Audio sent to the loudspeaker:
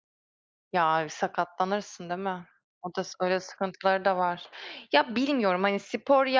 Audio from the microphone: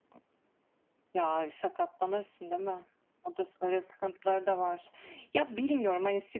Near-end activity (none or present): none